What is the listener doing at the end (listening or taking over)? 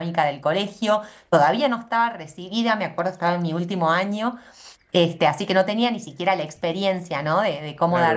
taking over